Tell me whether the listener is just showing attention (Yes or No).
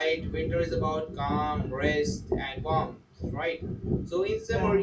Yes